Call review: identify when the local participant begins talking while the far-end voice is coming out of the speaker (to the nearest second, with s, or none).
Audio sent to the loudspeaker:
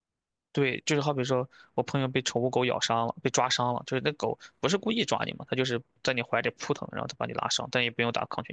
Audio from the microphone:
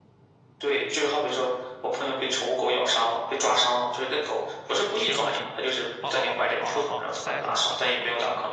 5 s